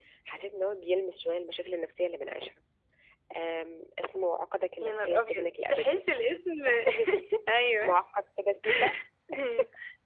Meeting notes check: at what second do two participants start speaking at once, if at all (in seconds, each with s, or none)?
4.8 s